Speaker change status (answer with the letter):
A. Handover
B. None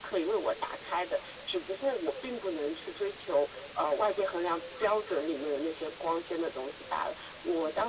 B